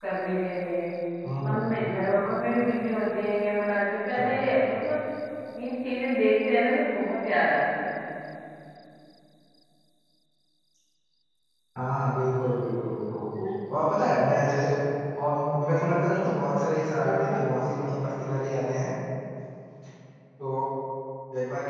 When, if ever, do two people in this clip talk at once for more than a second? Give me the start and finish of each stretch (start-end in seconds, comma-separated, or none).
none